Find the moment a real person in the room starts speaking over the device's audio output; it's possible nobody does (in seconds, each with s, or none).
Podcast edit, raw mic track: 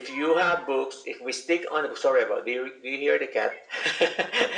none